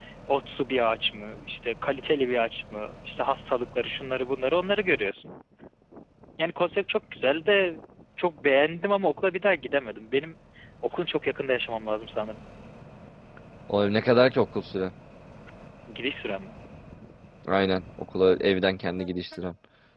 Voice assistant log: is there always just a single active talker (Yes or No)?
Yes